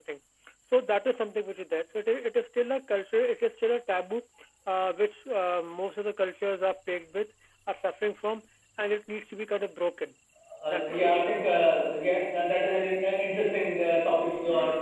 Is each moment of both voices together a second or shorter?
Yes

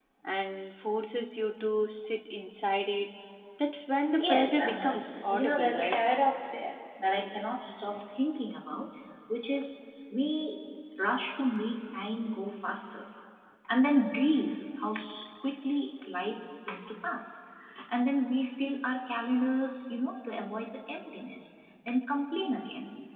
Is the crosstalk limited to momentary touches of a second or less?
No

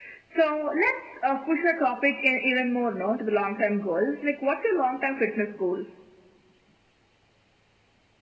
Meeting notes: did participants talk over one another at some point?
No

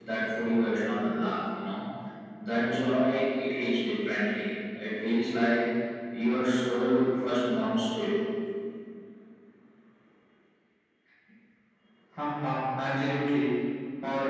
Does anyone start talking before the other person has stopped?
No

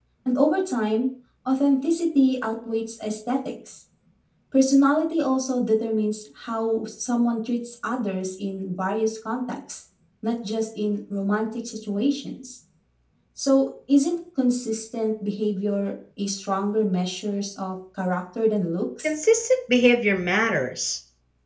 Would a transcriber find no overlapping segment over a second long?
Yes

